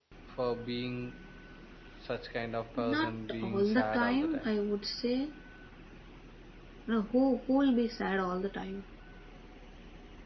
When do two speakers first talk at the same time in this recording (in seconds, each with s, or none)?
2.8 s